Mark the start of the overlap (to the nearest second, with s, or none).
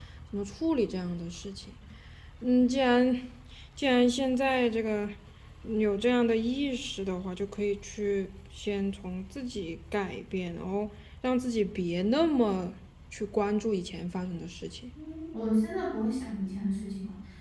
none